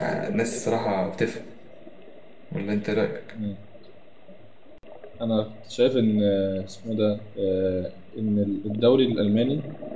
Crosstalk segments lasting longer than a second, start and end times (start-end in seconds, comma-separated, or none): none